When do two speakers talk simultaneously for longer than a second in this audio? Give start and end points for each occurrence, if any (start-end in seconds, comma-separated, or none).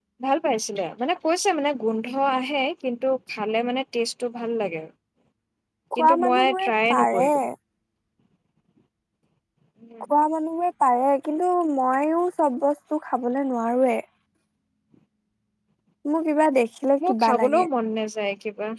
6.0-7.3